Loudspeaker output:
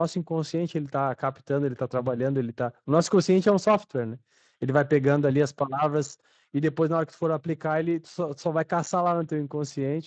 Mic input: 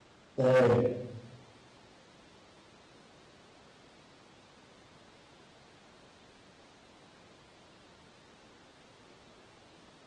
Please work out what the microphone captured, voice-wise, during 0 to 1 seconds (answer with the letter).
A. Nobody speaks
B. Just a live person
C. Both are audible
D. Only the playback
B